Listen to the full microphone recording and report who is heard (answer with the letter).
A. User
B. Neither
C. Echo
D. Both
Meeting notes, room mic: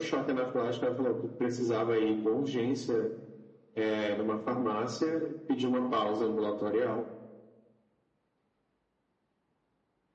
C